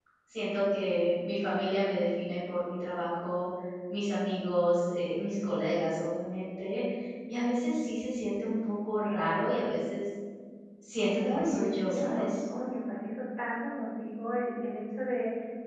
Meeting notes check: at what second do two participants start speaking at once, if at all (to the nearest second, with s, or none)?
11 s